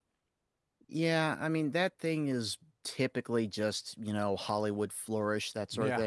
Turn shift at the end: No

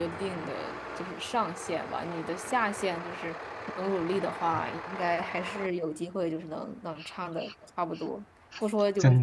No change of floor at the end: Yes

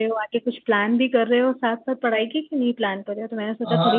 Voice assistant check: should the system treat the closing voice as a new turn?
Yes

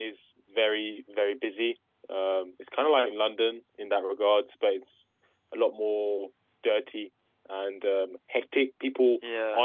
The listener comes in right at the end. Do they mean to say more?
No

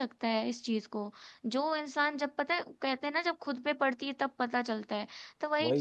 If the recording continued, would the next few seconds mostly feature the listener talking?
No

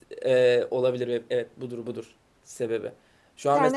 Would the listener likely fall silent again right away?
Yes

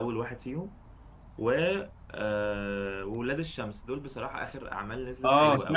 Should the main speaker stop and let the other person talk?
Yes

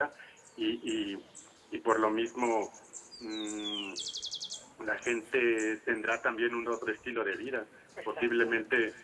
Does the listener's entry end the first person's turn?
No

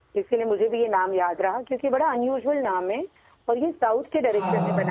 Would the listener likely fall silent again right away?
Yes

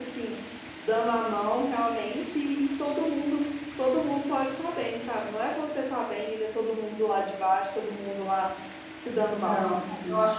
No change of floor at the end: No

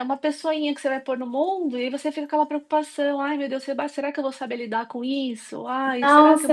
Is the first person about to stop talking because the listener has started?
Yes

